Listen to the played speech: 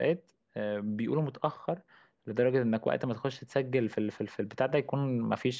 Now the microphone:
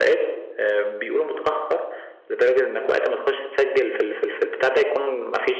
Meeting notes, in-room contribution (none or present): none